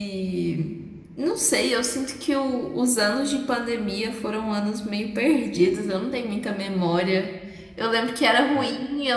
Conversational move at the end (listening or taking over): listening